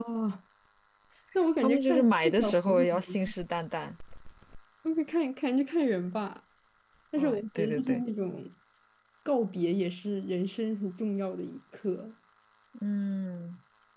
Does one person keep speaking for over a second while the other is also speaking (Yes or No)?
Yes